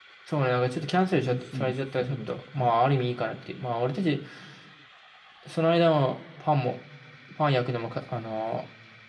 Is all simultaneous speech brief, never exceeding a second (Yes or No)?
No